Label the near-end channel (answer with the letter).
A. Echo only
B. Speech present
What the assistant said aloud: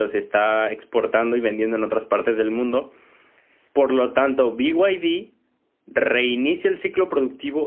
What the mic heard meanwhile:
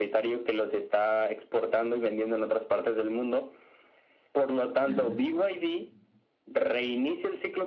B